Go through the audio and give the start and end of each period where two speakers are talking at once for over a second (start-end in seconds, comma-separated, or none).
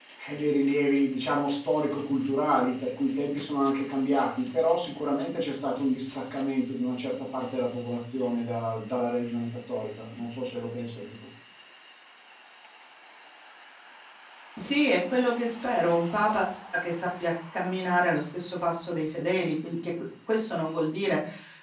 none